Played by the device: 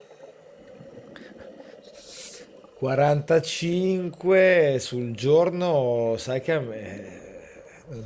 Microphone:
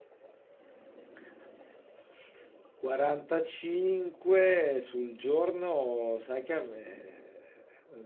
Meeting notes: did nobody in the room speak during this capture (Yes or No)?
Yes